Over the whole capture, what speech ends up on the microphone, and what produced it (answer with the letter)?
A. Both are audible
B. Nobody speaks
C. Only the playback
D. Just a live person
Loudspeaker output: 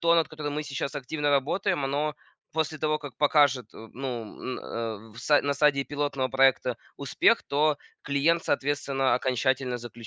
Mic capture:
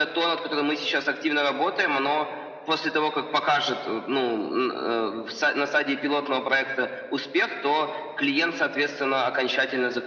C